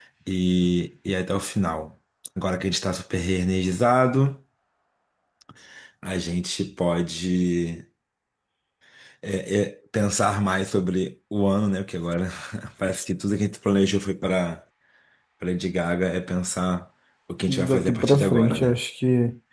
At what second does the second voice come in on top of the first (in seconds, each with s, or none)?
17.5 s